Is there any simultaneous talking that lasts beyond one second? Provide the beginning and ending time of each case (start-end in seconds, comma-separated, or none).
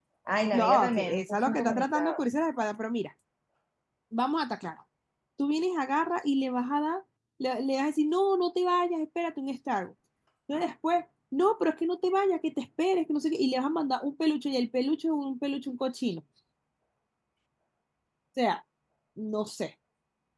0.5-2.2